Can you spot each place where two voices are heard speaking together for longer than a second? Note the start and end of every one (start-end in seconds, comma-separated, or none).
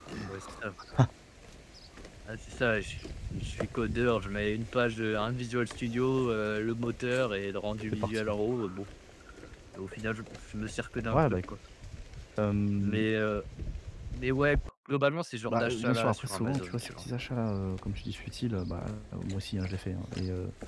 15.5-17.0